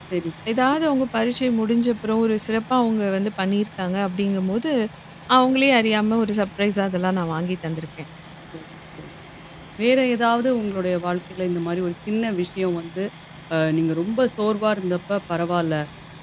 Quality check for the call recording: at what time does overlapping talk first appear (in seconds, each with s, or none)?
none